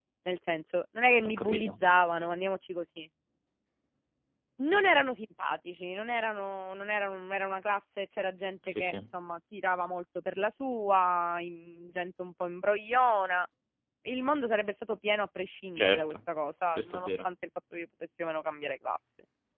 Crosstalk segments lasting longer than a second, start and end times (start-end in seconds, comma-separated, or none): none